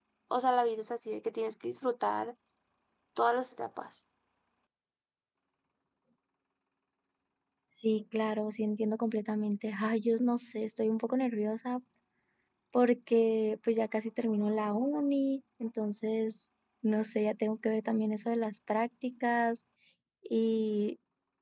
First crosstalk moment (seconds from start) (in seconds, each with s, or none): none